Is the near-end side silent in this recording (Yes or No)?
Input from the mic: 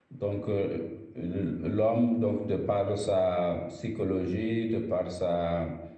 No